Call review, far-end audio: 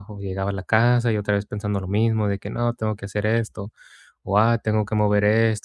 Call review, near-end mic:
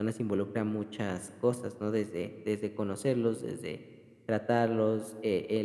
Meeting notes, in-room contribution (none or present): present